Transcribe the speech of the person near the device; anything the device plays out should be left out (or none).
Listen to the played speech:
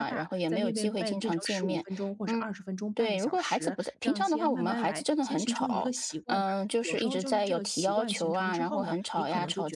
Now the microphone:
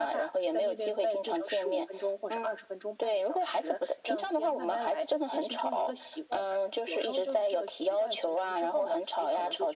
none